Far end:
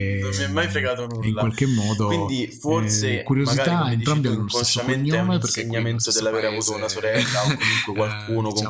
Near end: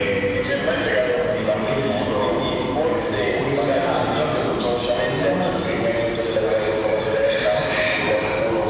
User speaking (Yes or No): No